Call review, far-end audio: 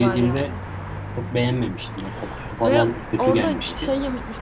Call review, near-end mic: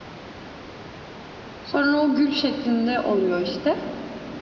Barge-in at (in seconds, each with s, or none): 1.6 s